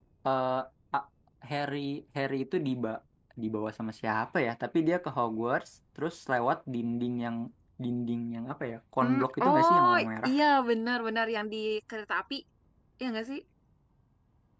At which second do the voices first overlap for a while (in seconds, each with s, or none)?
9.0 s